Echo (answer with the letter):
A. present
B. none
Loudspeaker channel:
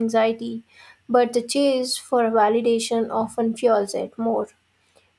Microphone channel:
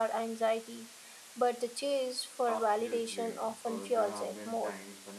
A